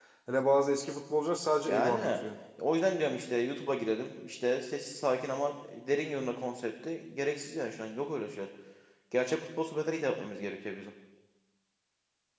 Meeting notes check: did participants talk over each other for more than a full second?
No

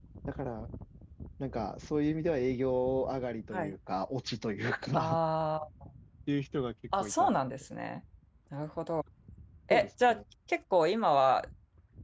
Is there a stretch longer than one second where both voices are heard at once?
No

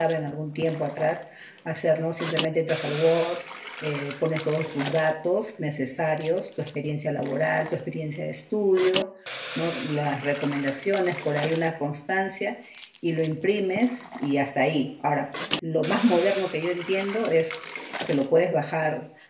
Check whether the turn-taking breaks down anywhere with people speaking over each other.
No

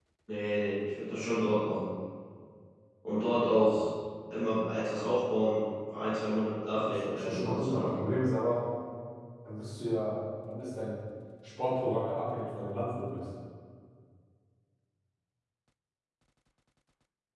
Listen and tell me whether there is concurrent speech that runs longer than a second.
Yes, from 6.7 s

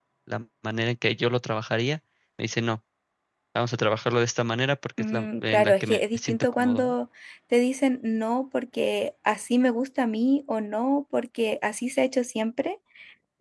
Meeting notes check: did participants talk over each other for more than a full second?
Yes, from 5.0 s

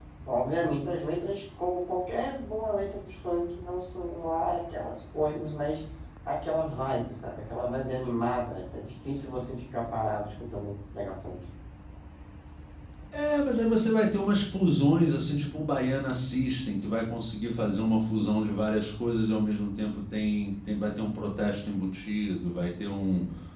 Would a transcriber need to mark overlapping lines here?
No

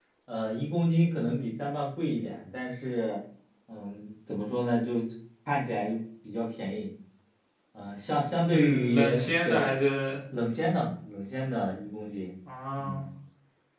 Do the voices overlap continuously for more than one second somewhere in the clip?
Yes, from 8.5 s

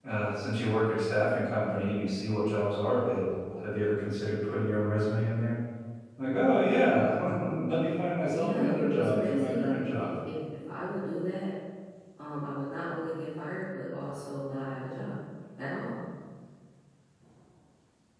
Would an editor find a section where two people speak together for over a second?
Yes, from 8.3 s

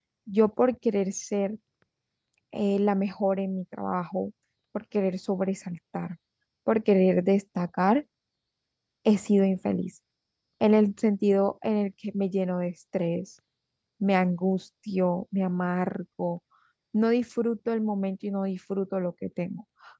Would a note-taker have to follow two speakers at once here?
No

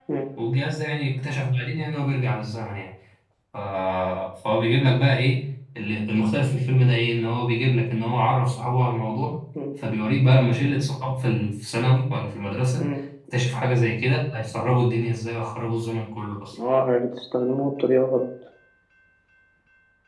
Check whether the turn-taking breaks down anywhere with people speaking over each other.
No

